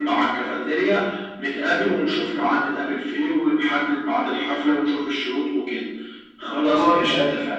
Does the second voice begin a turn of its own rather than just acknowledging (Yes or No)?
Yes